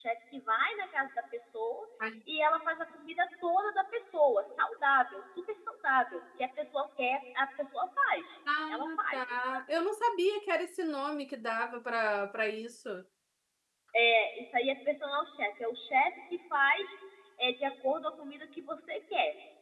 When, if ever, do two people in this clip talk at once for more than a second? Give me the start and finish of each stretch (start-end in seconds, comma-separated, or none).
none